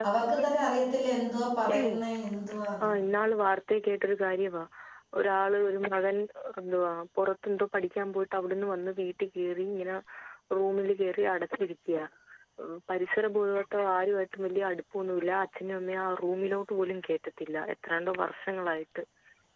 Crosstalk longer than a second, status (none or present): none